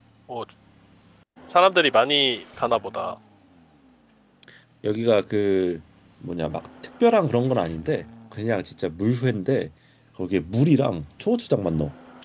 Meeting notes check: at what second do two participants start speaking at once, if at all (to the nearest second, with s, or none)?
none